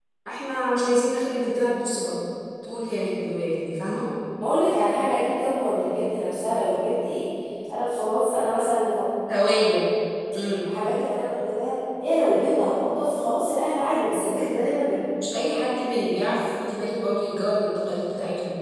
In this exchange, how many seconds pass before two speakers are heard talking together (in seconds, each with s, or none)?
none